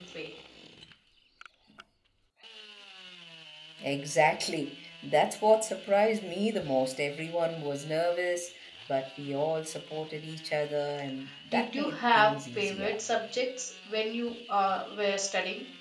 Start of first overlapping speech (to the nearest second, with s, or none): 12 s